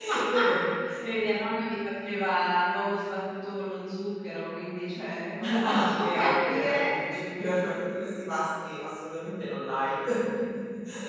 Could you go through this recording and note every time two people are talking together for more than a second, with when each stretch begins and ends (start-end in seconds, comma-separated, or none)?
5.7-6.9